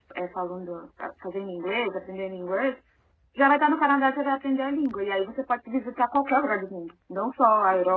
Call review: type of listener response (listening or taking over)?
listening